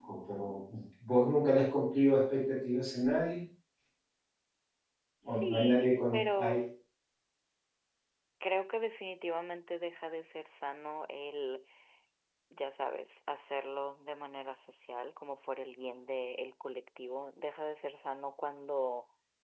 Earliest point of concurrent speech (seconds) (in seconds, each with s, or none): 5.2 s